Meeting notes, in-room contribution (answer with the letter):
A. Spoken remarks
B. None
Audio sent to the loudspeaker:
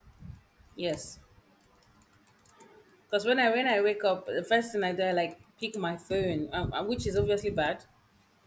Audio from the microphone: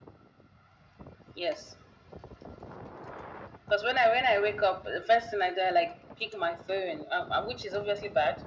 B